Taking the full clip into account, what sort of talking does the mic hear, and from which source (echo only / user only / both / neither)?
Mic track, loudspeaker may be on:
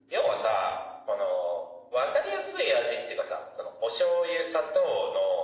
echo only